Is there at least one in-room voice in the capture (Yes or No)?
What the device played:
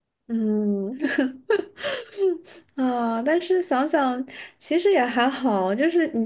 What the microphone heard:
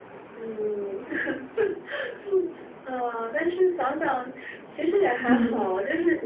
Yes